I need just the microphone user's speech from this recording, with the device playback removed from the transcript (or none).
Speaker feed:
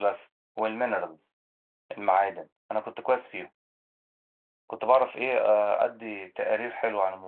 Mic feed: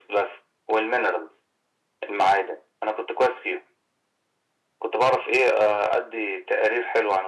none